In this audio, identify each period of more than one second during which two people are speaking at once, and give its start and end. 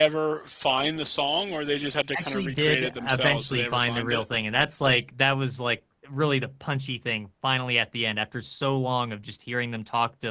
2.2-4.2

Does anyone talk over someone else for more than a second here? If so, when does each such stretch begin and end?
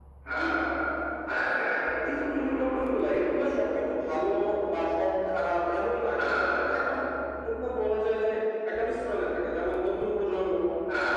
2.2-3.4

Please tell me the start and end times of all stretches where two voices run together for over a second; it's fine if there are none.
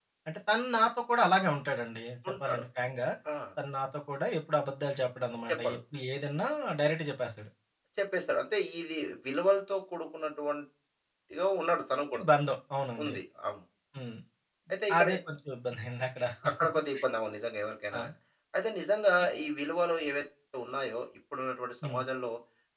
none

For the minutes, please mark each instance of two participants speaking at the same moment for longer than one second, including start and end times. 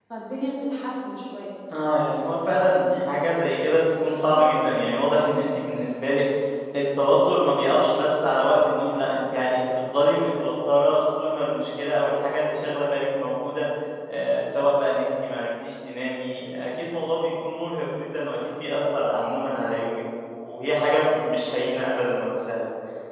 none

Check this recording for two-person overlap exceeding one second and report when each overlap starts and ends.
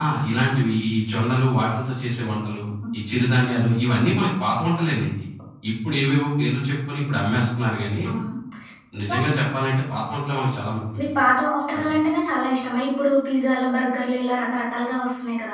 none

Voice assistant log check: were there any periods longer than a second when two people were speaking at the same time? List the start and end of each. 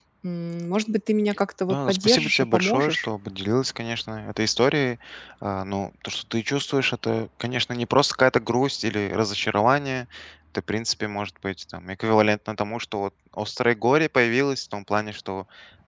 1.7-3.1

